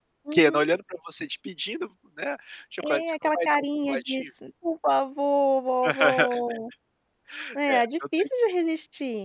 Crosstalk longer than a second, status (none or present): present